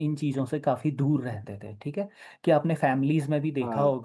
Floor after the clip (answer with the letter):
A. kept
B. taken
A